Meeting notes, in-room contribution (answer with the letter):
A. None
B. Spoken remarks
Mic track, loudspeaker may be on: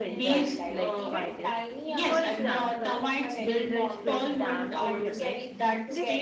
B